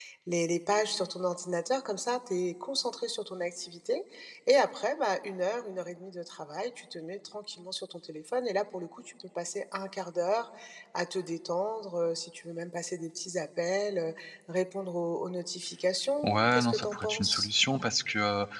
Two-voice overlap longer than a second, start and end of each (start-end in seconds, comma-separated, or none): 16.2-17.5